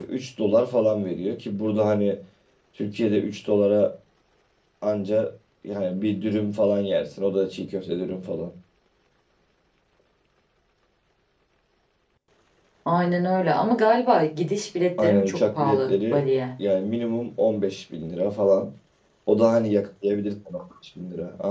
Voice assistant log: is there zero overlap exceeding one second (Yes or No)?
No